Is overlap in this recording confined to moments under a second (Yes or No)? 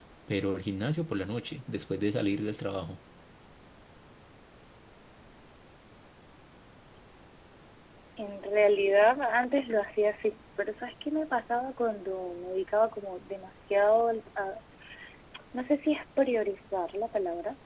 Yes